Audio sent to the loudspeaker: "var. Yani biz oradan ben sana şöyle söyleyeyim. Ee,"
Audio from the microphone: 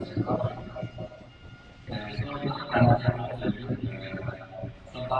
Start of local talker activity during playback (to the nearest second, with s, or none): none